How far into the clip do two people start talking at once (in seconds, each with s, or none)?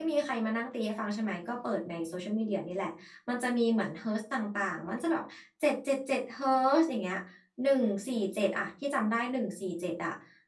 none